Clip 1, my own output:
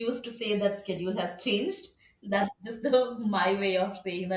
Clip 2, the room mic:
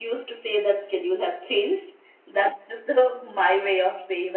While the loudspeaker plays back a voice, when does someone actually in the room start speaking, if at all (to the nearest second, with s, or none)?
none